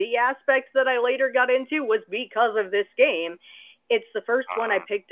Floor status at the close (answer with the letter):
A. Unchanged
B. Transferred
A